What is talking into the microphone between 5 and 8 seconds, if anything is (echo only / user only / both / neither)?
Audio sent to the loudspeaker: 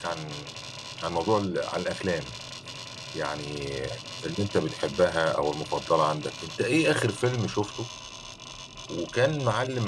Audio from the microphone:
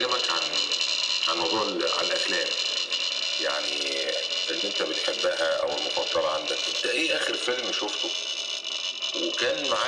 echo only